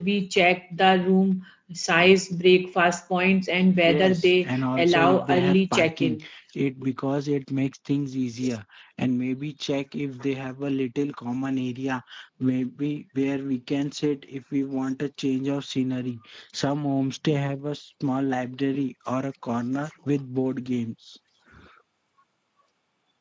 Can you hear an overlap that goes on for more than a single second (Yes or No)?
Yes